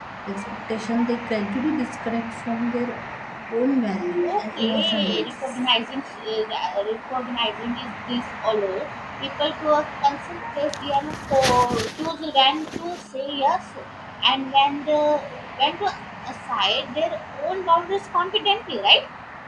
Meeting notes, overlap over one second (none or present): present